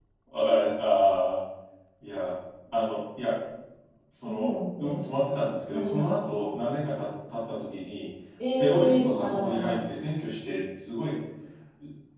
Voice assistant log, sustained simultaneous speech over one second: present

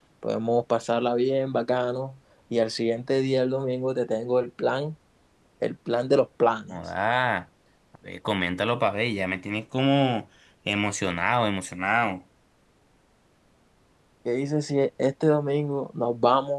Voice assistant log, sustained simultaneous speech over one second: none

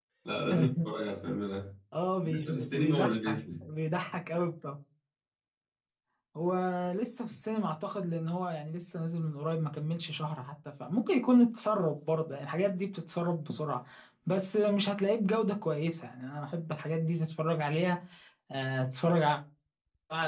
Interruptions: present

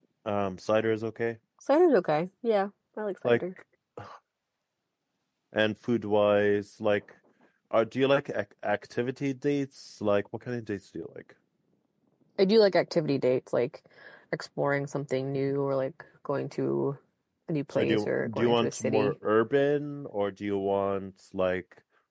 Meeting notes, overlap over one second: present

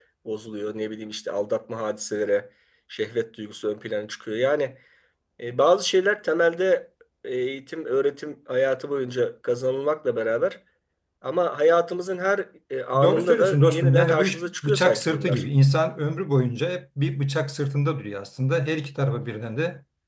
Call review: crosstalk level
present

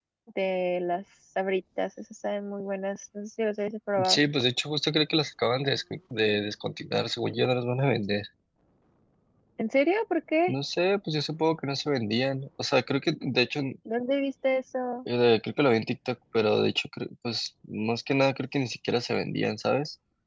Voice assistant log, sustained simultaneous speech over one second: none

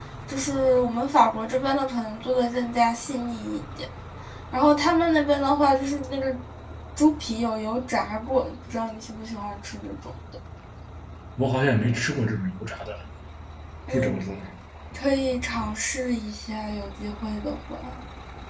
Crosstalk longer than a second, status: none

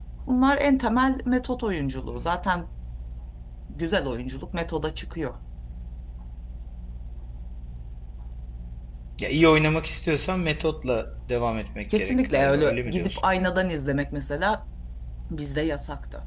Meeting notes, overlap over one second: present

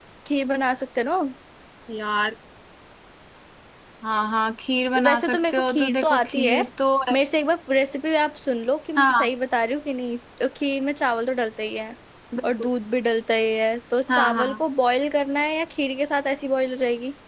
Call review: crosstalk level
present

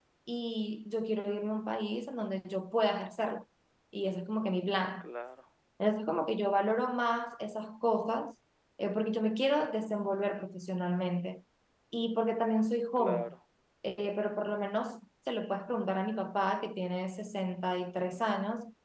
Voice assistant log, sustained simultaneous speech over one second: none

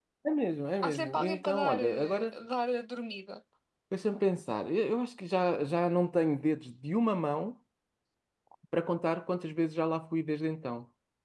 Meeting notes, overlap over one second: present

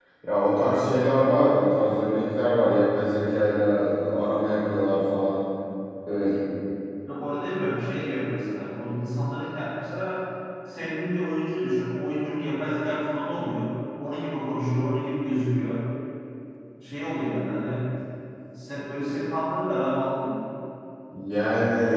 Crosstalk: none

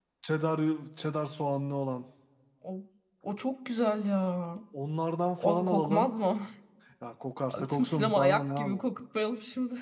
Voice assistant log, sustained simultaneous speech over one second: present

